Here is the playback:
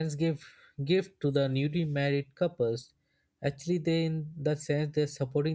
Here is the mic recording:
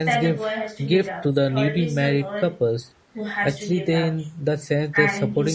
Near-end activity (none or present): present